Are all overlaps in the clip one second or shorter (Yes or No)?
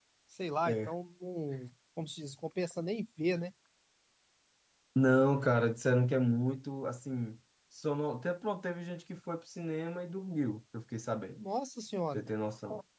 Yes